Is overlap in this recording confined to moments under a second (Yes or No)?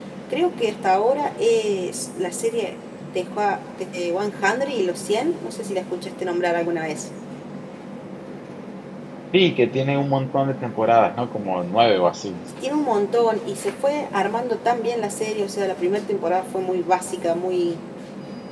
Yes